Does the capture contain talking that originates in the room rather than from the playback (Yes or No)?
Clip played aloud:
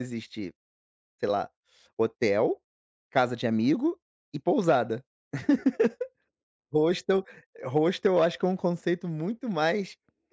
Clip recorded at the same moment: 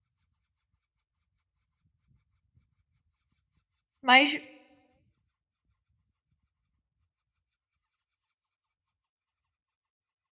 Yes